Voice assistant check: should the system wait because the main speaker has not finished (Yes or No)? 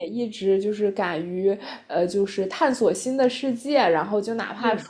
Yes